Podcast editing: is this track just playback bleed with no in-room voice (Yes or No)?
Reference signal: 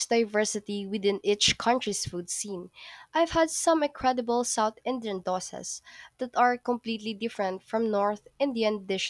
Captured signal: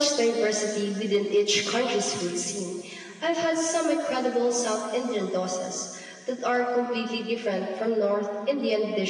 Yes